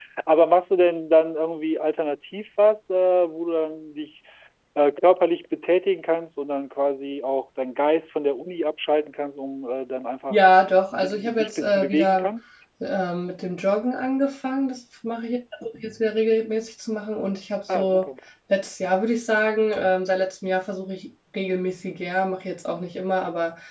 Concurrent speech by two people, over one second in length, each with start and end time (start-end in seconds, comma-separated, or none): 11.0-12.3